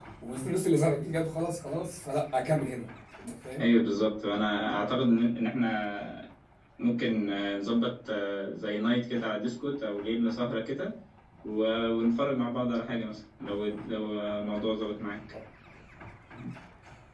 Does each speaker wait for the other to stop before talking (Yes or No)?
Yes